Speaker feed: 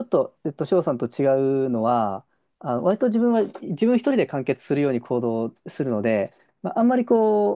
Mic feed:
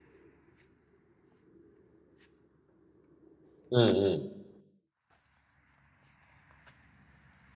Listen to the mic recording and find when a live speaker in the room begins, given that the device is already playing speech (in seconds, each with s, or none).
3.7 s